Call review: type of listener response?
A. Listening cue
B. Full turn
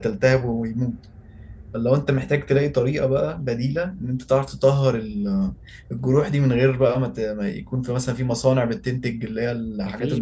B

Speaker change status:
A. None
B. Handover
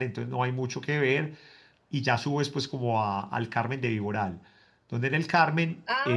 B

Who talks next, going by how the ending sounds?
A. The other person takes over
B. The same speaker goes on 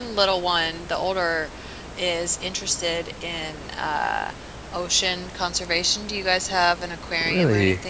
A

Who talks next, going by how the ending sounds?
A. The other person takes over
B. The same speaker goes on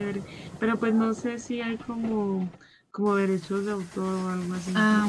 A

